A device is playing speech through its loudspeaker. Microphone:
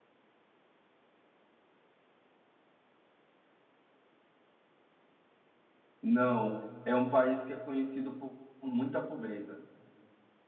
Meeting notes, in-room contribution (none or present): present